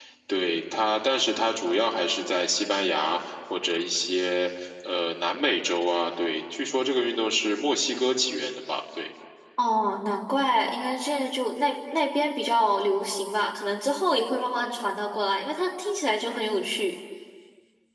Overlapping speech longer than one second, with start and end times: none

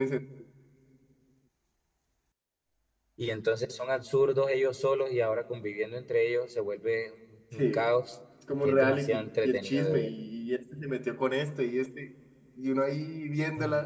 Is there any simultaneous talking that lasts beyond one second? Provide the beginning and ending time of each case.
8.6-10.1

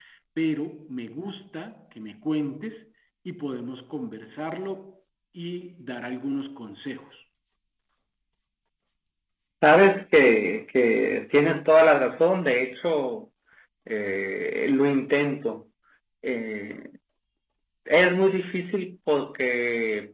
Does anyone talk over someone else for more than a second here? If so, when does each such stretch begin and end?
none

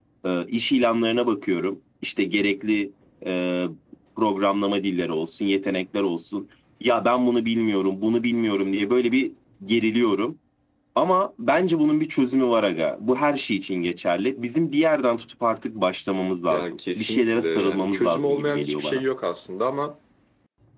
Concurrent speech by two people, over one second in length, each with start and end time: 16.5-19.0

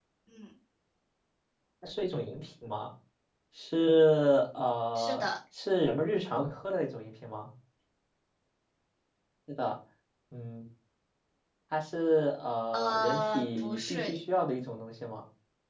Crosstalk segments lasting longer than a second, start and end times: 12.7-14.2

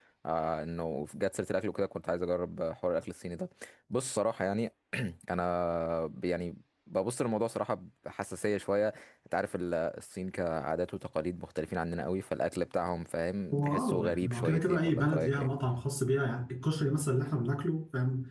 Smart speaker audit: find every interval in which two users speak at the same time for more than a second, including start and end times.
13.5-15.5

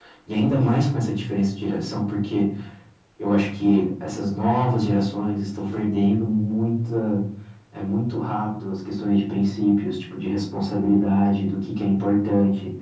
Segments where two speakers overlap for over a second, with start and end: none

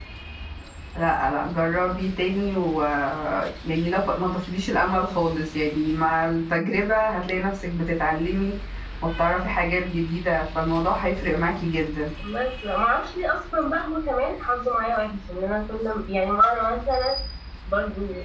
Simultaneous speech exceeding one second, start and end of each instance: none

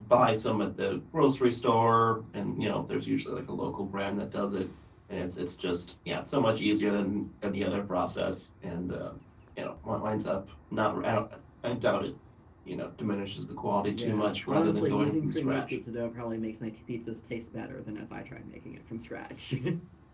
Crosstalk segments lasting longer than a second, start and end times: 13.9-15.8

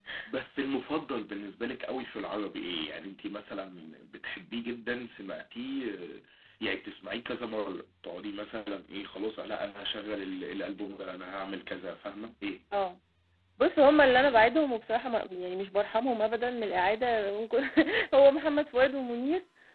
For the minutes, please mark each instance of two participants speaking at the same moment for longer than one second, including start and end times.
none

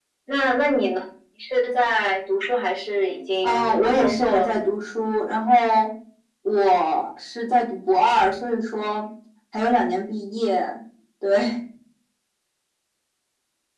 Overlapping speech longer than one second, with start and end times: 3.4-4.7

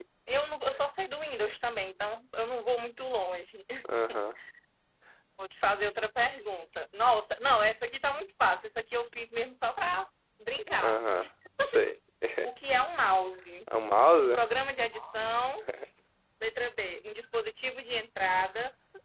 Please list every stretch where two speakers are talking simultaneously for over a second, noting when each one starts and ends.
none

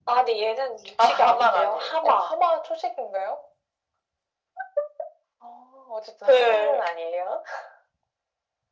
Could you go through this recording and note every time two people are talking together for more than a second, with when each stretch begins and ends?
1.0-2.3

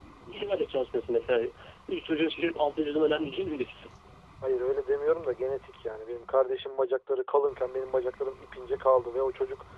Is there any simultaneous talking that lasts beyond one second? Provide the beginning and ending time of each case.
none

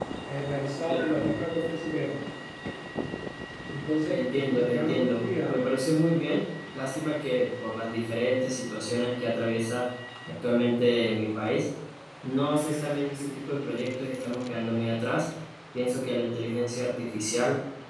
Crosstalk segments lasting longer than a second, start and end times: 4.0-5.6

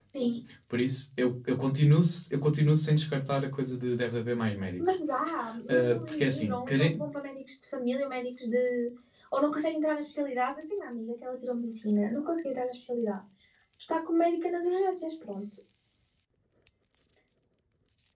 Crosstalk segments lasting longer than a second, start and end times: 5.7-7.0

